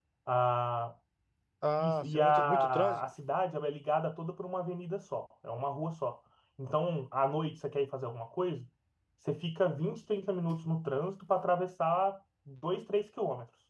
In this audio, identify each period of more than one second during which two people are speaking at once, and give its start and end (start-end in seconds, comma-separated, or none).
1.8-3.0